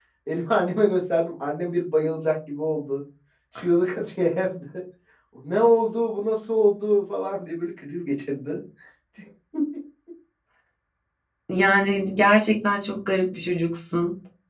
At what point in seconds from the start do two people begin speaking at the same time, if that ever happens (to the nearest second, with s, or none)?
none